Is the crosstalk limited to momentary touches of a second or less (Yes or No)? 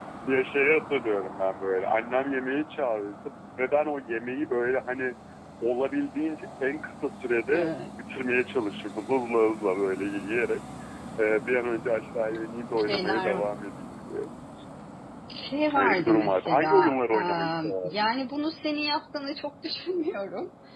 No